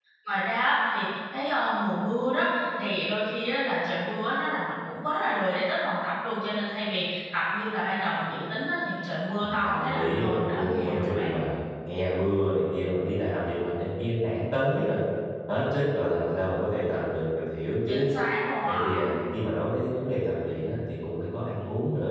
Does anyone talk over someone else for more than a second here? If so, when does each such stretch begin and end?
9.4-11.3

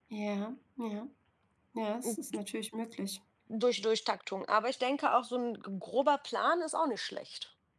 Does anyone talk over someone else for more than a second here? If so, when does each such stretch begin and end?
none

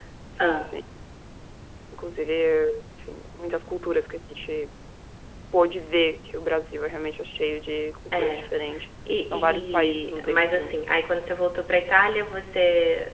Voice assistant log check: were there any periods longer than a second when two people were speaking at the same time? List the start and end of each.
9.3-10.8

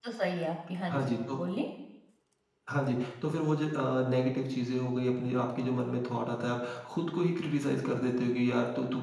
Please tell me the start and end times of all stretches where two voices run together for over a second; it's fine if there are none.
none

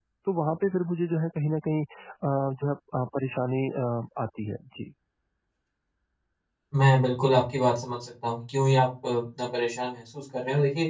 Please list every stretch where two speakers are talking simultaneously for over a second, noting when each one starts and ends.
none

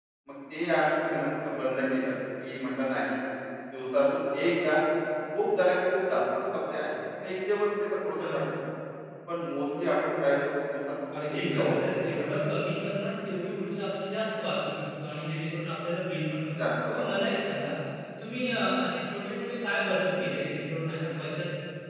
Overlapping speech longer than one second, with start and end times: 11.2-12.4

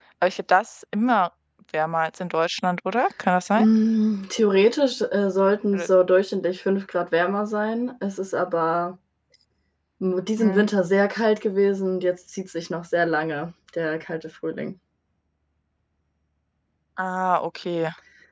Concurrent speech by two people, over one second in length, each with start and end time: none

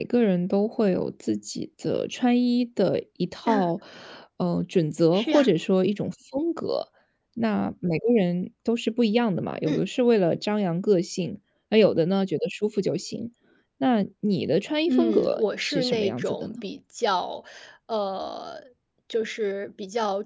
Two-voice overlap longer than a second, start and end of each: 14.9-16.5

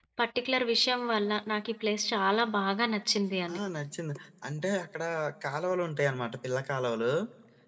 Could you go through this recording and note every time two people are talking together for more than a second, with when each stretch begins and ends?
none

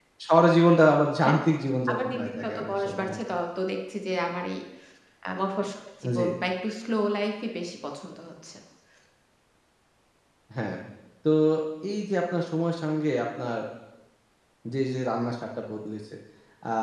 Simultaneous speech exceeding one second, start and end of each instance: 1.9-3.2

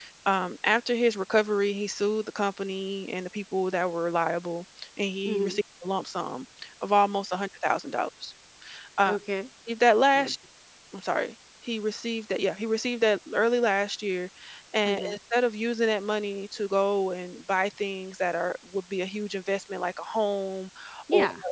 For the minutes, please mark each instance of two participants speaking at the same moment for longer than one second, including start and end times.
none

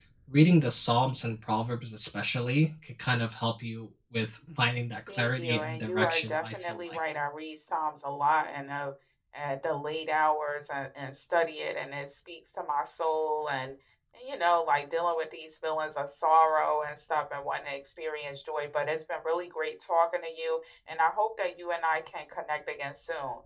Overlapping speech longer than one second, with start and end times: 5.1-7.0

